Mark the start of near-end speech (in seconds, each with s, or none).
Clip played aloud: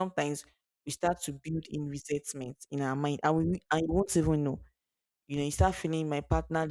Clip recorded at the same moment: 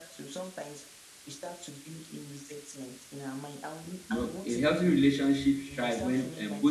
4.1 s